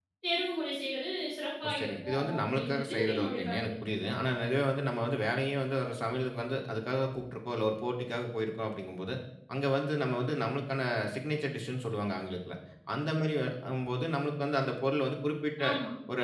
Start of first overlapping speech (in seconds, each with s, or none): 1.6 s